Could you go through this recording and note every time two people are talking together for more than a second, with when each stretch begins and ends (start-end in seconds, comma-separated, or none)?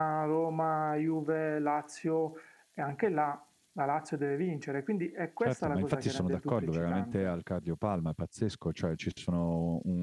5.4-7.3